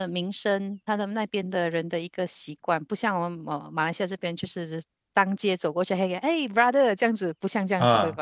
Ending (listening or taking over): taking over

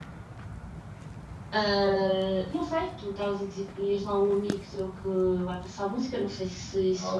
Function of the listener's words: taking over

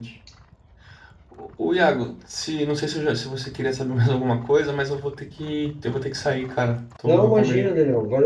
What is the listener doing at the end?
taking over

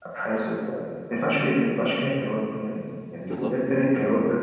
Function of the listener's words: listening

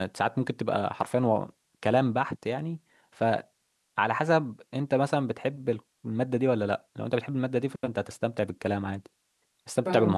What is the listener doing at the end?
taking over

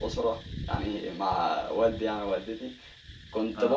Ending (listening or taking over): listening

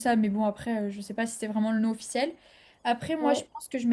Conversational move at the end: listening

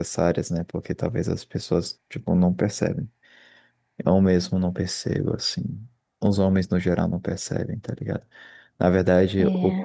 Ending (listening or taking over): listening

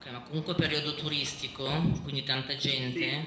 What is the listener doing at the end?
taking over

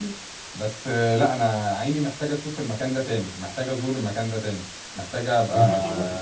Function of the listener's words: listening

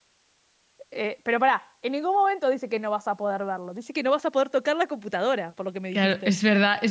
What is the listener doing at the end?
taking over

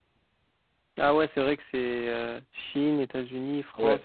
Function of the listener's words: taking over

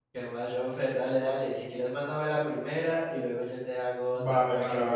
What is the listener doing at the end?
taking over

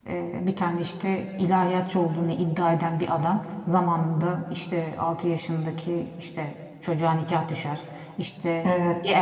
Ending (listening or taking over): listening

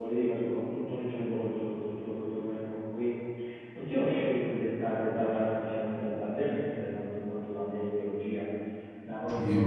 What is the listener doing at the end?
listening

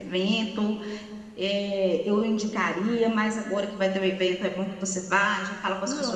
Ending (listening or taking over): listening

